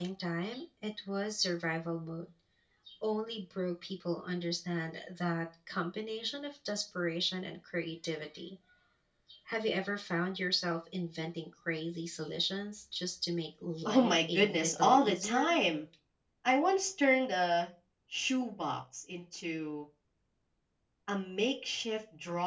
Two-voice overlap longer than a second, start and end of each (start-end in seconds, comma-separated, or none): 13.8-15.6